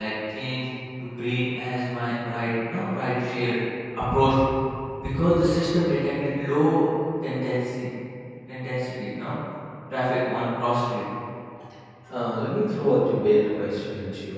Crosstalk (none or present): none